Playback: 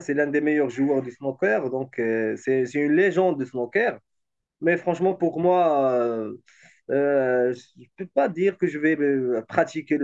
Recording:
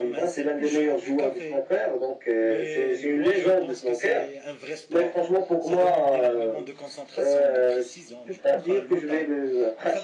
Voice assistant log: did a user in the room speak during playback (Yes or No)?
Yes